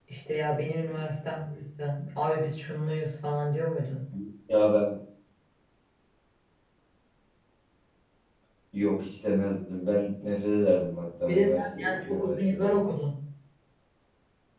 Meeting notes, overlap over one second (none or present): present